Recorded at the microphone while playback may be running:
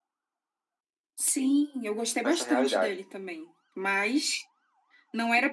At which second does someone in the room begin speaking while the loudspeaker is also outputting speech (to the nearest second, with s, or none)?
2 s